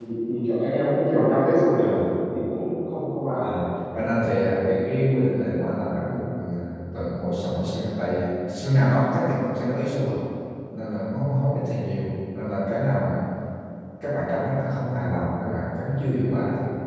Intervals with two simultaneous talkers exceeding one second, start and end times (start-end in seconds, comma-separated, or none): none